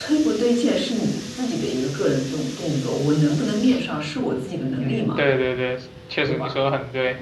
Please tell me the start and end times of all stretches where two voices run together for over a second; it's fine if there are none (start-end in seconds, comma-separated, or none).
none